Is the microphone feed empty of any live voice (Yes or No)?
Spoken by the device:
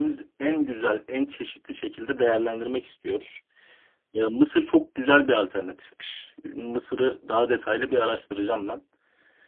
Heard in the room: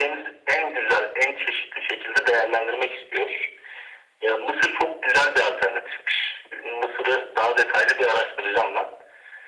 Yes